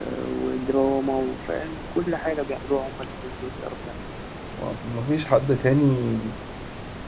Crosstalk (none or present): none